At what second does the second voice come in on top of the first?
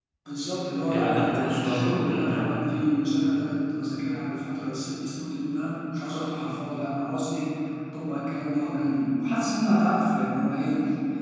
1 s

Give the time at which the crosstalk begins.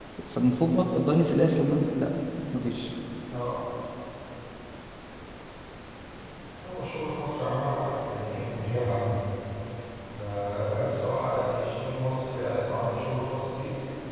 none

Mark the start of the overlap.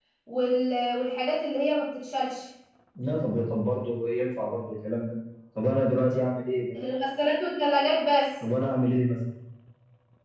none

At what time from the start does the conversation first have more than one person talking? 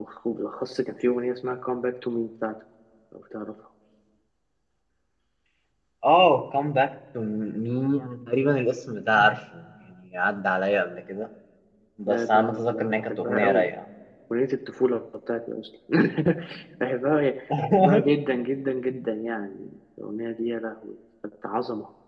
12 s

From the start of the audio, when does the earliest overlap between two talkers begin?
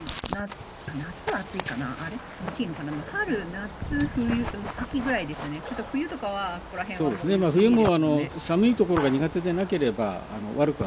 7 s

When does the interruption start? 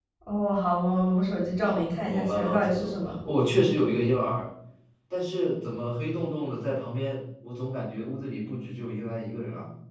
2 s

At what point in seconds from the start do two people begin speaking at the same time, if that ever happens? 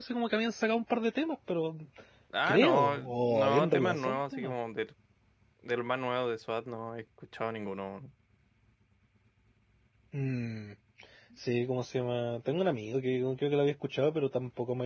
2 s

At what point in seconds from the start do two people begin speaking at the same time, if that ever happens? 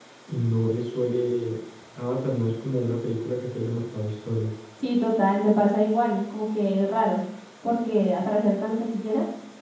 none

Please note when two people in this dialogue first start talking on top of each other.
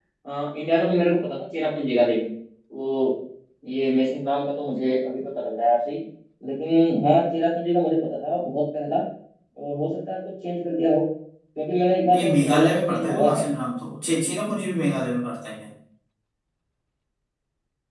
12 s

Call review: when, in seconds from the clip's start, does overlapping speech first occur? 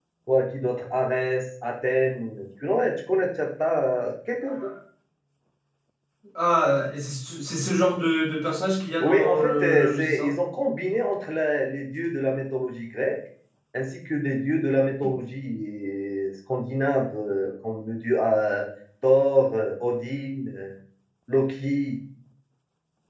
9 s

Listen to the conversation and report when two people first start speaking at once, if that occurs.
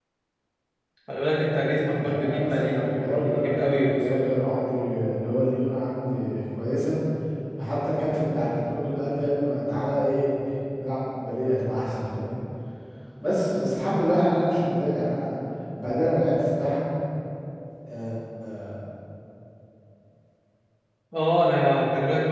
2 s

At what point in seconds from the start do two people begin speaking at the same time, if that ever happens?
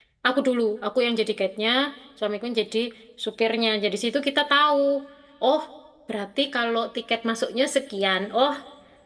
none

